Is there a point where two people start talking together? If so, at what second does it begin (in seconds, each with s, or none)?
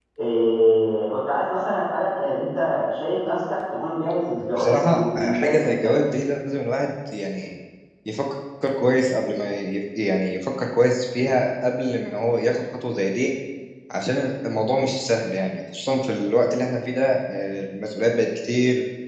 4.5 s